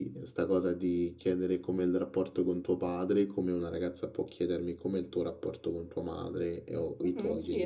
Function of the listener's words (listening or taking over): taking over